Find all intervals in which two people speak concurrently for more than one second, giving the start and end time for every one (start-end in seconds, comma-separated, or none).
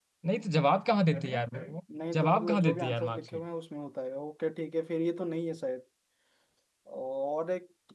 2.1-3.4